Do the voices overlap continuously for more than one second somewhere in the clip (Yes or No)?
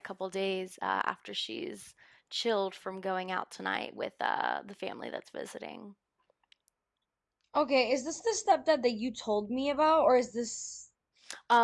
No